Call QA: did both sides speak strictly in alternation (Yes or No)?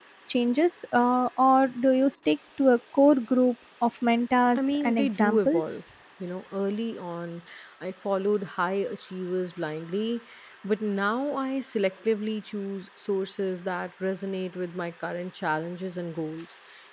No